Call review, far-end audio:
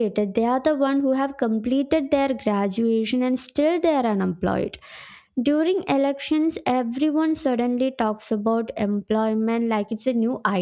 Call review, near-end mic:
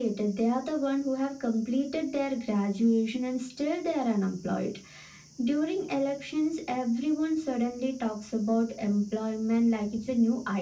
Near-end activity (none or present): none